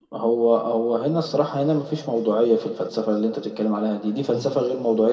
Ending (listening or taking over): listening